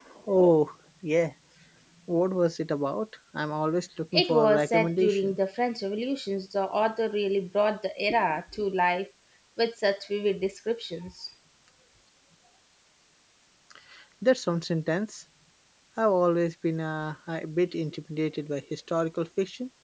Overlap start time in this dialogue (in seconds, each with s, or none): 4.1 s